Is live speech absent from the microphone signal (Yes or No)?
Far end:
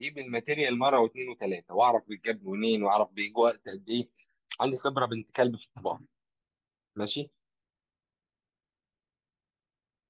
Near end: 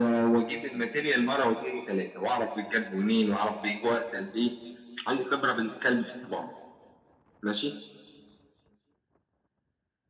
Yes